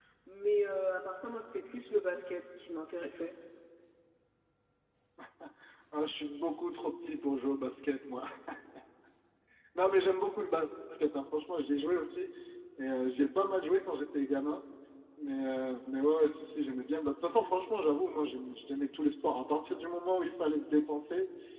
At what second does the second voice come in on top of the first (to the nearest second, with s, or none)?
none